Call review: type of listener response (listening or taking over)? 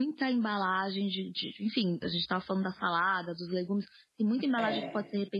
listening